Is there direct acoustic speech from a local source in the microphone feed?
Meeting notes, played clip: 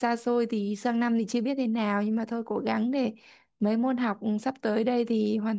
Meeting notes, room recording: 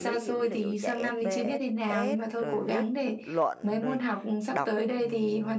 Yes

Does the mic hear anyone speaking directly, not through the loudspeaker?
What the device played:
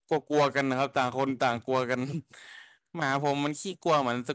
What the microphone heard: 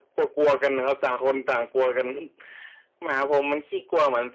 No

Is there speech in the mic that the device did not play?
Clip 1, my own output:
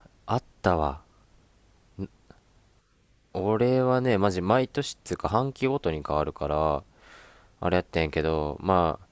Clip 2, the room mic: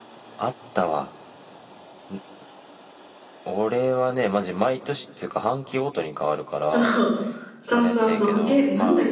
Yes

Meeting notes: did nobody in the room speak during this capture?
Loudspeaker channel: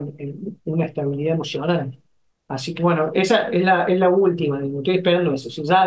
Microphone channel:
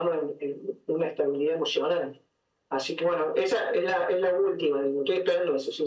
Yes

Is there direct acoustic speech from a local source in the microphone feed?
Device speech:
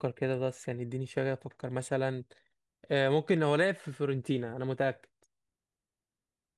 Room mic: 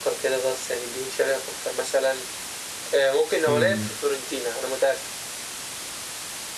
Yes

